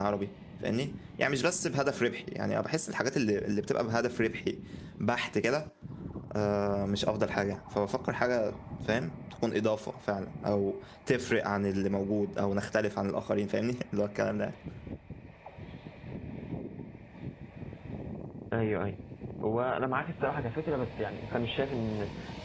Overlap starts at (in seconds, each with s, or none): none